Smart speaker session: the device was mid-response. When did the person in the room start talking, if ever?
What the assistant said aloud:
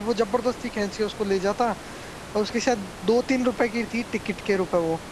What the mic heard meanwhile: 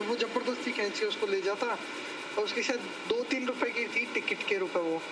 none

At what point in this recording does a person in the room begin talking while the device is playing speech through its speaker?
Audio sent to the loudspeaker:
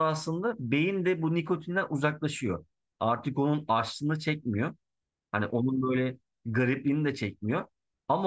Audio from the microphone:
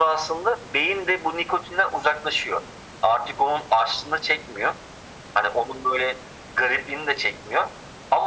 none

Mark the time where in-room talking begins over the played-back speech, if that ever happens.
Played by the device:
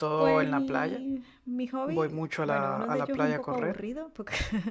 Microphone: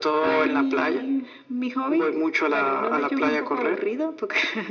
none

